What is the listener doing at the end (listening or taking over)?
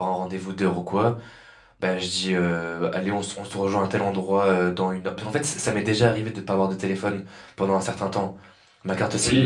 taking over